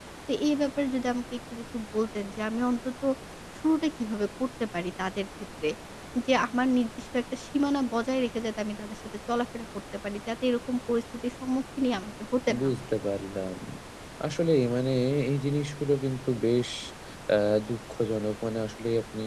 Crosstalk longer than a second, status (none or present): none